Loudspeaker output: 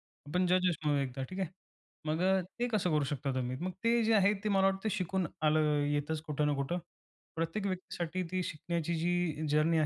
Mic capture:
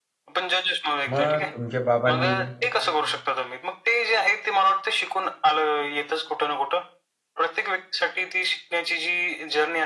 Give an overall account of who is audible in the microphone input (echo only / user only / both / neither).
both